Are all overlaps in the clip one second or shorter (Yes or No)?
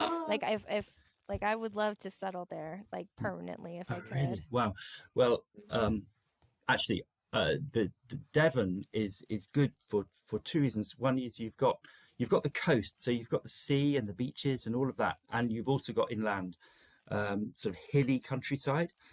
Yes